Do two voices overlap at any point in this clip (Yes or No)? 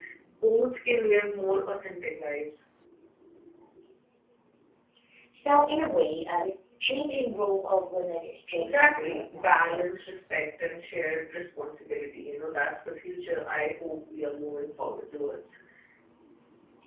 Yes